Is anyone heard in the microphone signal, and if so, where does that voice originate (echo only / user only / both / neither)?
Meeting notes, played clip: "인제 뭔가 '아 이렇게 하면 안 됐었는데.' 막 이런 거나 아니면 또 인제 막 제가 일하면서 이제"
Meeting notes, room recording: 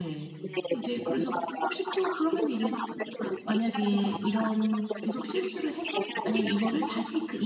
both